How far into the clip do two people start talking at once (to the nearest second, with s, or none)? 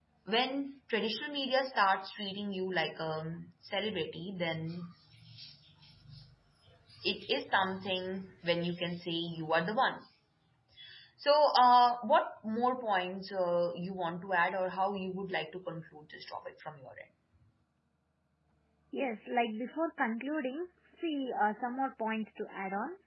none